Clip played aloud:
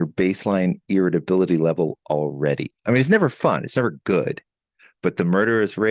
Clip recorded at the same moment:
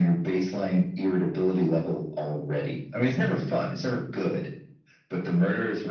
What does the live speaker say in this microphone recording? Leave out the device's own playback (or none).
none